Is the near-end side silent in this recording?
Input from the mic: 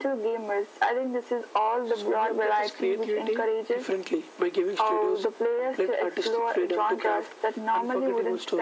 Yes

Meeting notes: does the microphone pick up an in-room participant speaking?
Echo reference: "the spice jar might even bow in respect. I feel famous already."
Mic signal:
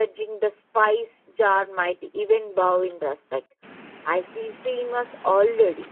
No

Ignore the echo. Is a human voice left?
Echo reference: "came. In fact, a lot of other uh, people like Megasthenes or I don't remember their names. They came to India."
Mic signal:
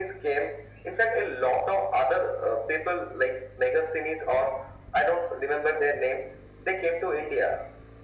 No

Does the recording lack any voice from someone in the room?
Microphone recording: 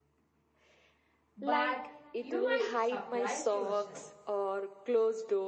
No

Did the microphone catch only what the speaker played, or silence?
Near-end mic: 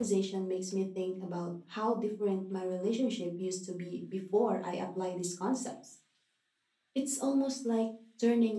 No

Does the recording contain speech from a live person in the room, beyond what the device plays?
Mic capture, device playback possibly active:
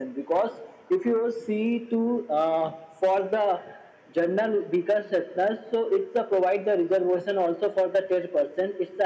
No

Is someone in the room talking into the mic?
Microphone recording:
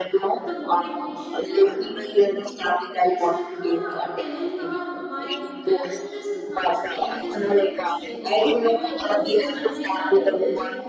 Yes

